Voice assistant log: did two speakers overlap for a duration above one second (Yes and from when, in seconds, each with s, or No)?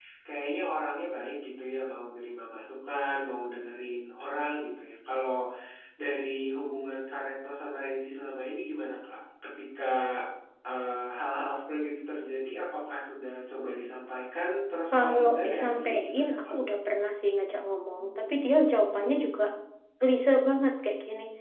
Yes, from 14.9 s